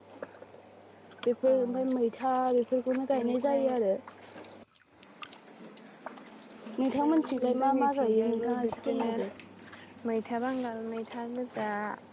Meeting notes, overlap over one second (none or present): present